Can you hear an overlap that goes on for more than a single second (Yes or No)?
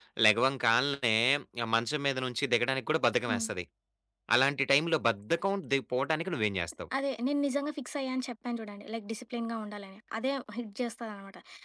No